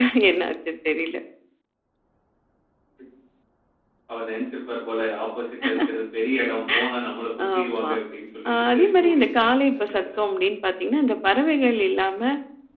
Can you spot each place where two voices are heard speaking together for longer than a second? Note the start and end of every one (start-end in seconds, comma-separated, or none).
8.5-10.2